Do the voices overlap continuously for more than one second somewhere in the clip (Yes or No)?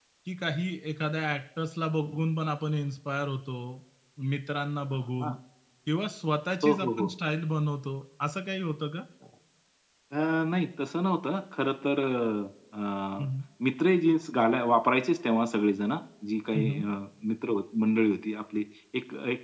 No